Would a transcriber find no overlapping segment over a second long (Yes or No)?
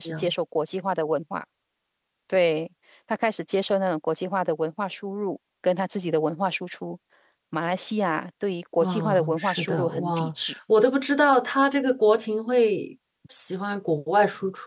No